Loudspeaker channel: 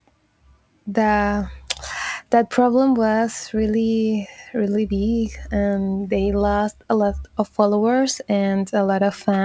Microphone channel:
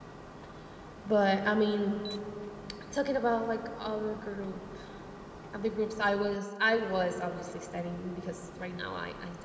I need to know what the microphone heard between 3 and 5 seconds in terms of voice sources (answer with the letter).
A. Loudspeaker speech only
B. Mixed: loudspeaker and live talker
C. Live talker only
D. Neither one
C